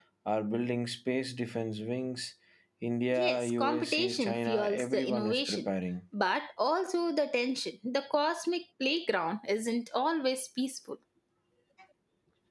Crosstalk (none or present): present